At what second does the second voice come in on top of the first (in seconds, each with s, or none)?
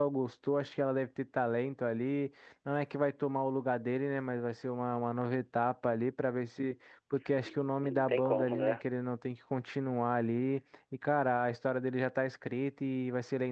7.4 s